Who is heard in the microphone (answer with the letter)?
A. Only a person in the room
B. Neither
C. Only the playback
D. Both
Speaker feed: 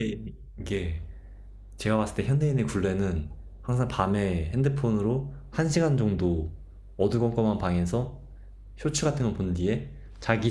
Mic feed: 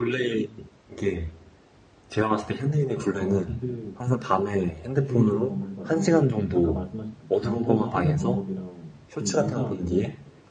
D